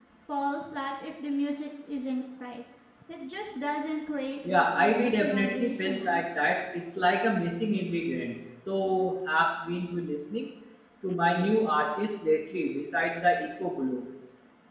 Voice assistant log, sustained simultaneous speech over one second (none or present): present